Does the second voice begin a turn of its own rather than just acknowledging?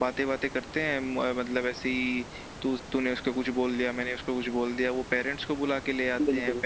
No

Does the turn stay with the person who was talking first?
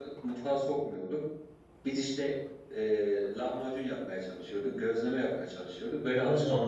No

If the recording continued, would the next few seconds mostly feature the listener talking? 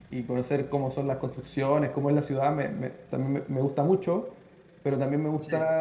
No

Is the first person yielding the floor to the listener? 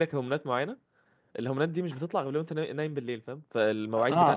Yes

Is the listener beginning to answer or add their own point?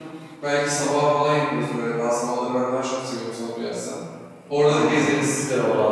Yes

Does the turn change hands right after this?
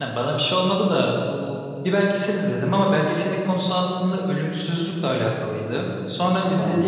No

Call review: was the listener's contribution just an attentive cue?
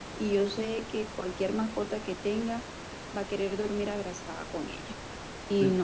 Yes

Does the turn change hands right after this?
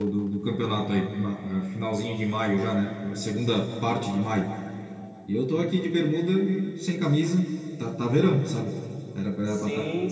Yes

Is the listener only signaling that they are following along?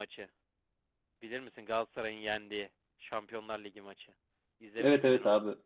No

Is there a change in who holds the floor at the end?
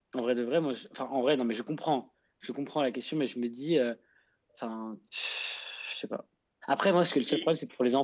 No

